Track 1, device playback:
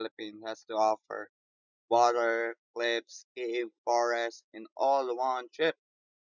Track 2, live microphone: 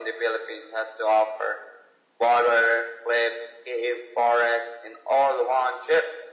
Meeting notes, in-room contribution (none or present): none